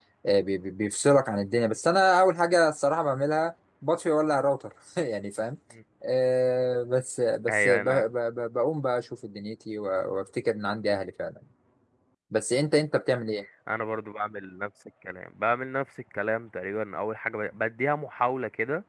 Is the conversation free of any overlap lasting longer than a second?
Yes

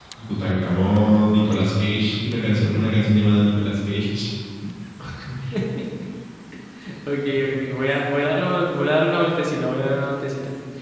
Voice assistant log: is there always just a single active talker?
Yes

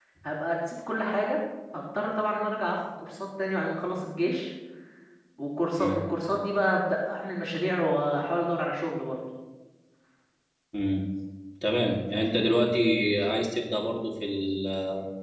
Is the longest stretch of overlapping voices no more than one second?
Yes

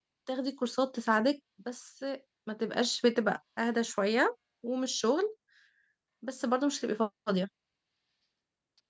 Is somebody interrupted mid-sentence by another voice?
No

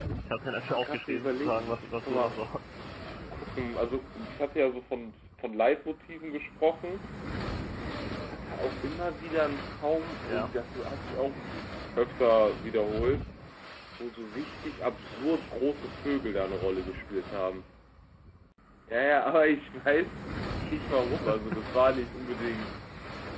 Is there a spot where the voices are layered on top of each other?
Yes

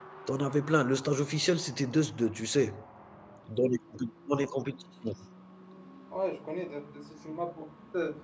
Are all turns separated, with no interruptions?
Yes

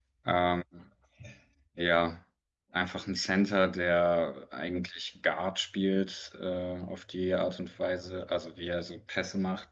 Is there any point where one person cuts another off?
No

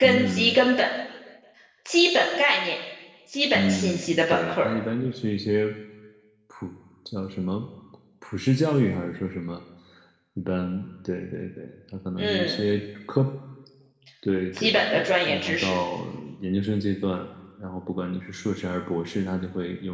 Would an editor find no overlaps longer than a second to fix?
No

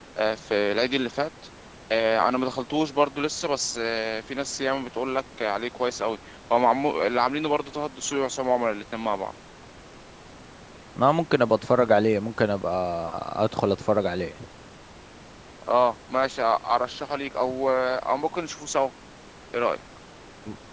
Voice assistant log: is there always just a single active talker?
Yes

